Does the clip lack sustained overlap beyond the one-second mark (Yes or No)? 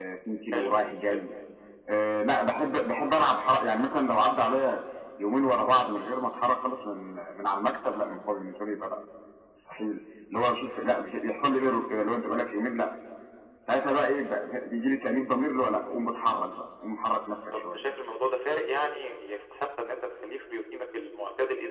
Yes